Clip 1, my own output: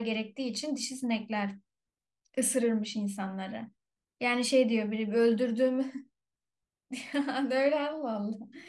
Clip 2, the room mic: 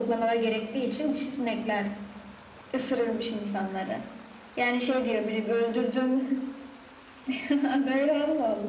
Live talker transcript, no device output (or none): none